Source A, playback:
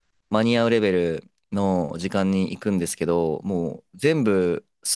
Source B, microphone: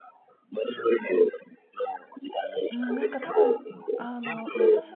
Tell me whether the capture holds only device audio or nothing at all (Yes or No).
No